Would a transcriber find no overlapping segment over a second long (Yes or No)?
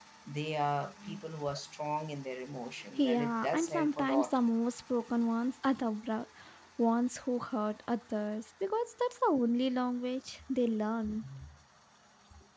No